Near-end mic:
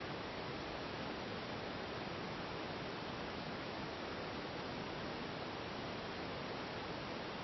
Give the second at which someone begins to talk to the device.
none

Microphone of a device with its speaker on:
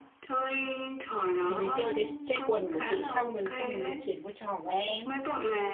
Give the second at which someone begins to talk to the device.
1.5 s

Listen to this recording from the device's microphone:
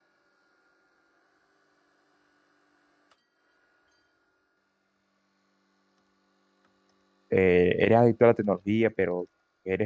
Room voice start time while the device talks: 7.3 s

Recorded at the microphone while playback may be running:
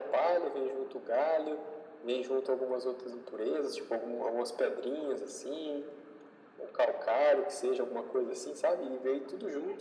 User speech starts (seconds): none

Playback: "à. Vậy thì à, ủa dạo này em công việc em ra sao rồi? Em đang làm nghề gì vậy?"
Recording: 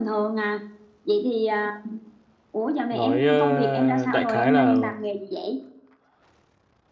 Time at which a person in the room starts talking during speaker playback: 2.9 s

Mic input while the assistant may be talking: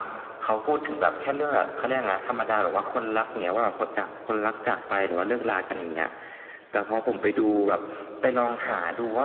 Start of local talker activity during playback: none

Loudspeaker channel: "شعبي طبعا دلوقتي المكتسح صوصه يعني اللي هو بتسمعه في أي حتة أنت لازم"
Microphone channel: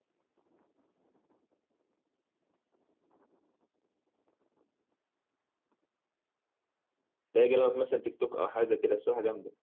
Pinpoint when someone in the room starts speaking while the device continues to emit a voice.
7.3 s

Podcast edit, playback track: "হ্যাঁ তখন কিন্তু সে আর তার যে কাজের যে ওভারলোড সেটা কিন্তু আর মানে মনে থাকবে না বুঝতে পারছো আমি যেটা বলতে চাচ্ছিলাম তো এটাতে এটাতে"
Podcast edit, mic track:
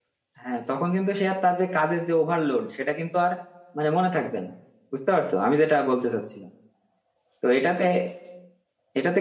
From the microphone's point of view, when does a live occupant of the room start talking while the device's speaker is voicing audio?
none

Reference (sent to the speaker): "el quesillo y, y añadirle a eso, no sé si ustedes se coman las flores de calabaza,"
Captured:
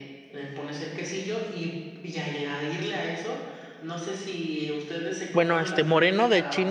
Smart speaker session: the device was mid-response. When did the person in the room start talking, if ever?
5.3 s

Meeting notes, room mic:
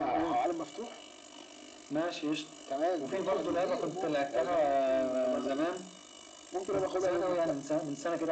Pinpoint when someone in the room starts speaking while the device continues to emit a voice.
3.0 s

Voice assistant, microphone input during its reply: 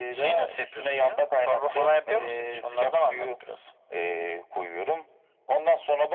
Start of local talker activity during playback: none

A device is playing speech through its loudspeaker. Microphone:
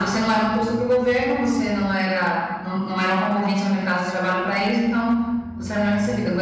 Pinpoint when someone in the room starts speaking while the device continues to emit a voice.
none

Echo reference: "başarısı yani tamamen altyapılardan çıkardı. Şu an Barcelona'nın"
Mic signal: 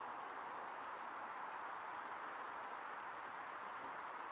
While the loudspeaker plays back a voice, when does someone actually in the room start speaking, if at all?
none

